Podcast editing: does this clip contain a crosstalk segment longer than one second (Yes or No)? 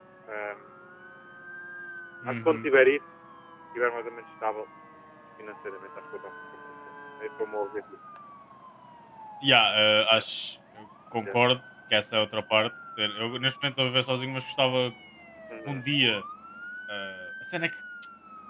No